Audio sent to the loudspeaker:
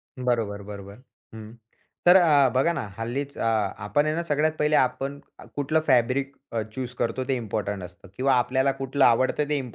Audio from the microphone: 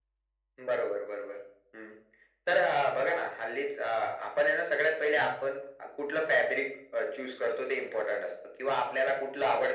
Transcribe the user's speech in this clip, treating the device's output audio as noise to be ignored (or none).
none